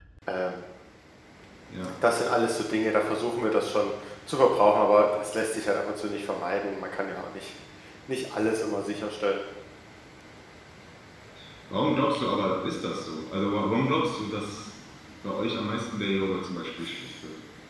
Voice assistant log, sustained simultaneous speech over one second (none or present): none